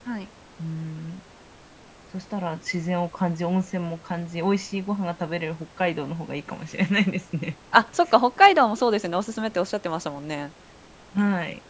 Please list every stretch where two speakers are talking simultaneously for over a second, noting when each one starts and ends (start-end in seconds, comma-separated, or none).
none